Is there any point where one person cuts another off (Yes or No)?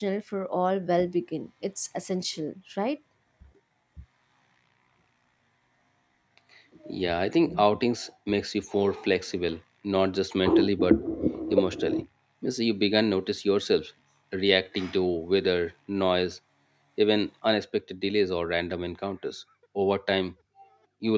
No